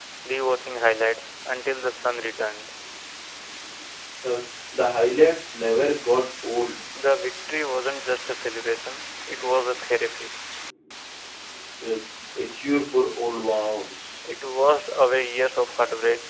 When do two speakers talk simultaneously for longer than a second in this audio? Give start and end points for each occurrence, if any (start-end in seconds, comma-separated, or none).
none